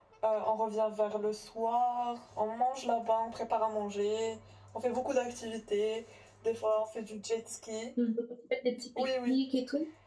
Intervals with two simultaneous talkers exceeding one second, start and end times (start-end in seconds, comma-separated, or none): none